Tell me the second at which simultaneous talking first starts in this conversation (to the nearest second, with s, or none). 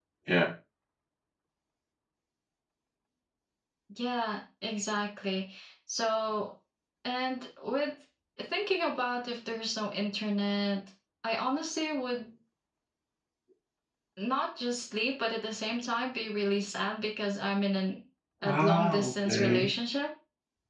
18 s